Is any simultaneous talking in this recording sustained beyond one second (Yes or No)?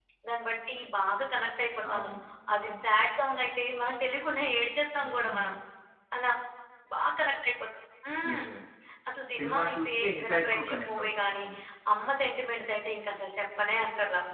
Yes